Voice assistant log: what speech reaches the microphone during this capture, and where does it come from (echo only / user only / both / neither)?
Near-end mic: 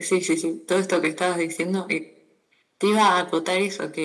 echo only